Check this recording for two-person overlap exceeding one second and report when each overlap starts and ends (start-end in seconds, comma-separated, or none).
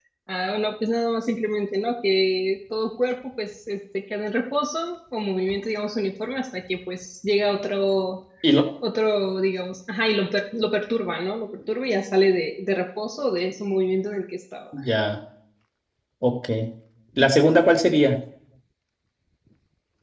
none